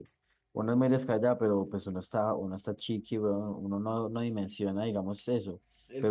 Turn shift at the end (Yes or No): No